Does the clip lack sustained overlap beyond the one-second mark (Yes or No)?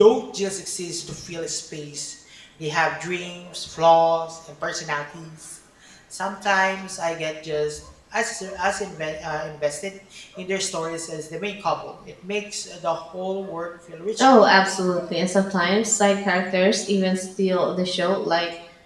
Yes